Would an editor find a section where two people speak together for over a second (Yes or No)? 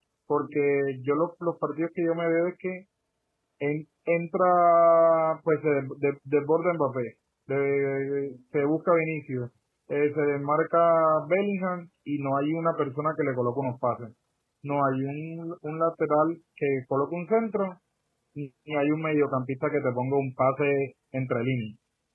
No